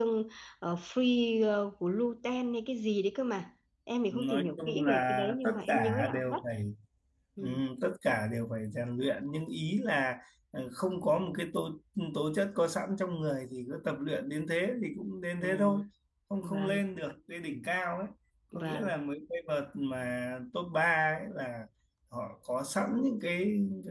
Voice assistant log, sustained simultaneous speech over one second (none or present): present